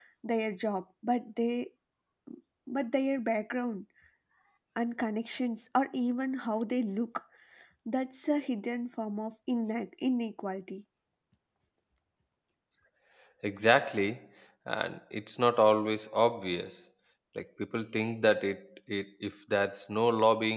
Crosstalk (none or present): none